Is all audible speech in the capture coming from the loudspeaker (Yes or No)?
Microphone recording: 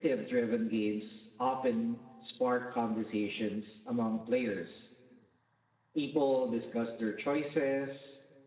No